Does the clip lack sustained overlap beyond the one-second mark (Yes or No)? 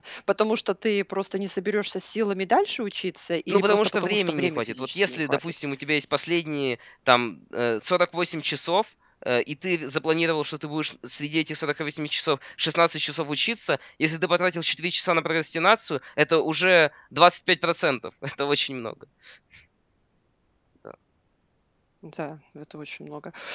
No